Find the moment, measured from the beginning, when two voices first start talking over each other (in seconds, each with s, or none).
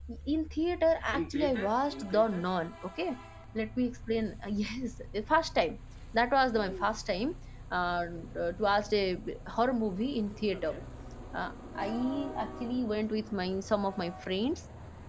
1.1 s